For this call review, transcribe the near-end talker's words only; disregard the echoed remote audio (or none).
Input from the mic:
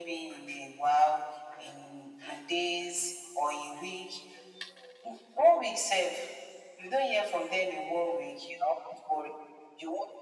none